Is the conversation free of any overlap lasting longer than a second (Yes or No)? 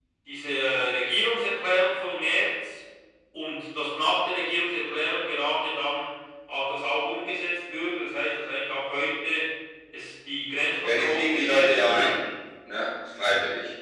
No